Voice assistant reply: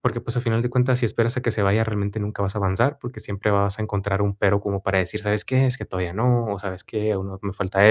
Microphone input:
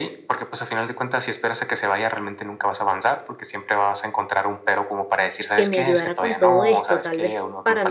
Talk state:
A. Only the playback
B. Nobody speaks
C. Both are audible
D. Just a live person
C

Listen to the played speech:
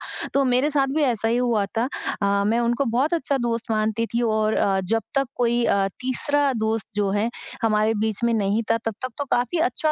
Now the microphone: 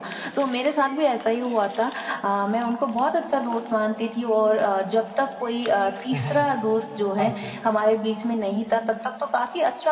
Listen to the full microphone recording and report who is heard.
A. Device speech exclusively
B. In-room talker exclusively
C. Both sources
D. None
C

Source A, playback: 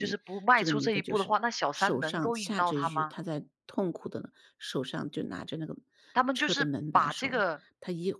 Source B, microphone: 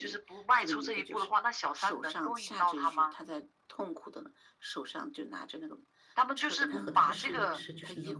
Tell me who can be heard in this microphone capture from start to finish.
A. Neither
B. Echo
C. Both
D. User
C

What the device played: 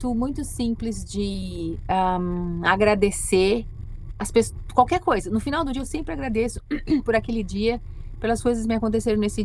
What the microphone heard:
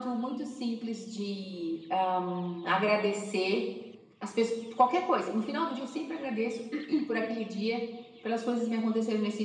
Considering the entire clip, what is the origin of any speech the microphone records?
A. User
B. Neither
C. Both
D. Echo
D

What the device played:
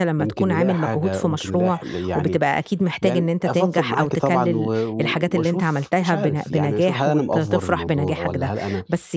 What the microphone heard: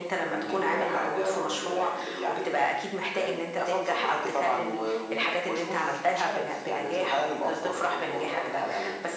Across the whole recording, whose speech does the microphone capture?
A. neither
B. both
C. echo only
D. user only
C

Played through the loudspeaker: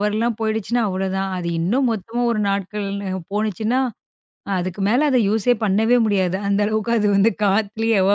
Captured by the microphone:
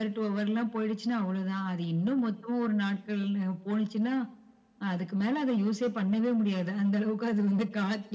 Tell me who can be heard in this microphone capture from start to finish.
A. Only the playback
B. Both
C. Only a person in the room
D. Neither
A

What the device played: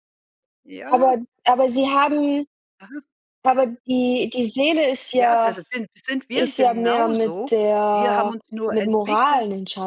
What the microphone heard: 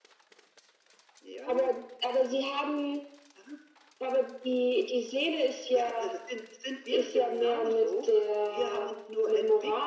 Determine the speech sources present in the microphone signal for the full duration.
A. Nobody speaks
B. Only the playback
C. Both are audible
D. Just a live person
B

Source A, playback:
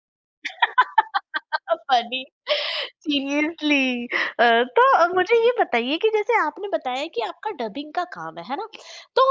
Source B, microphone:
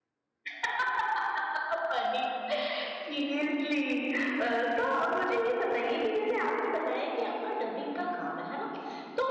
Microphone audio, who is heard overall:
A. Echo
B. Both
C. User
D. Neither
A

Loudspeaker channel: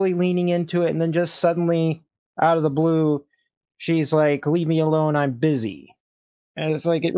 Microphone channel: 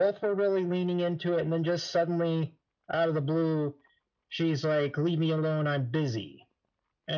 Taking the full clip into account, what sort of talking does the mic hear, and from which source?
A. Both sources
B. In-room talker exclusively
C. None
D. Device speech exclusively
D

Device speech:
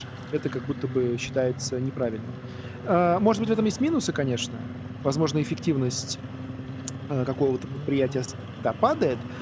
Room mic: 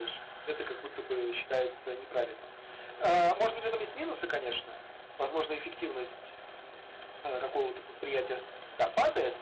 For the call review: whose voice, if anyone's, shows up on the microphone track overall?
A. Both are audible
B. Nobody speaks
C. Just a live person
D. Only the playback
D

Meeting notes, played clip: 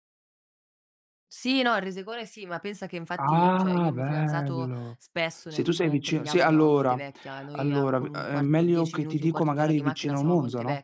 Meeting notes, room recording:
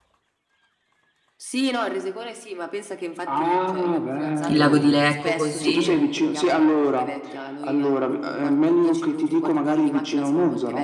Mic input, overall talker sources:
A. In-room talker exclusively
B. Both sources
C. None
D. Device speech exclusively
B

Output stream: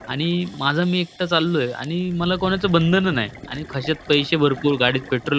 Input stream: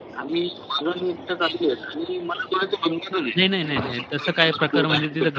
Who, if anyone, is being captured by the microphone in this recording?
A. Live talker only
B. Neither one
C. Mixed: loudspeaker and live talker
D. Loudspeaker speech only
C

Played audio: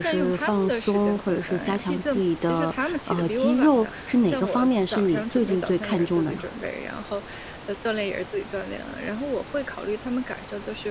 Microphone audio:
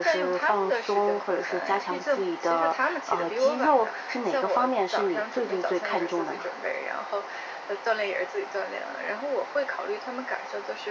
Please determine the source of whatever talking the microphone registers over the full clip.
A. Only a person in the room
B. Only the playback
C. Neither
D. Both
B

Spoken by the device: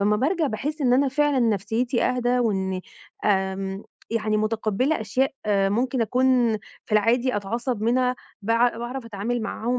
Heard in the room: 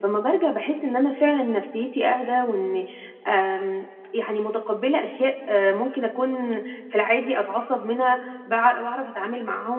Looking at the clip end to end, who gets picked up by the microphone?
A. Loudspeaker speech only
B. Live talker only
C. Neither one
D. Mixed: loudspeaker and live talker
A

